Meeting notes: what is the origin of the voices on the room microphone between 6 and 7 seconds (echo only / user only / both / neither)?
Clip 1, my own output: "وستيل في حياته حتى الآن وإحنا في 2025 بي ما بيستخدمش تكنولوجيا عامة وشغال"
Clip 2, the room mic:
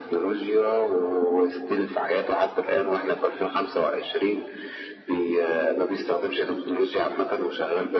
echo only